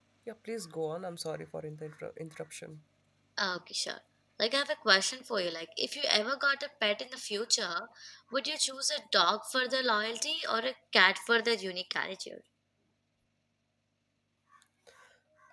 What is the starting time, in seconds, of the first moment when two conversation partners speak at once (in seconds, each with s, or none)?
none